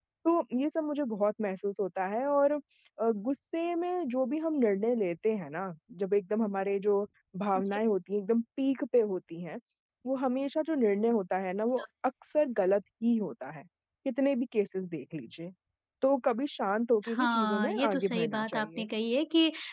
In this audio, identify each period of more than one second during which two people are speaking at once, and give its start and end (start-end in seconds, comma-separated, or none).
17.1-18.9